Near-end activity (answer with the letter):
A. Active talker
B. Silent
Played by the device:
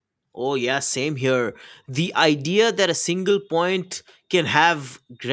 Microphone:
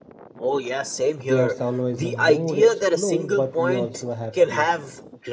A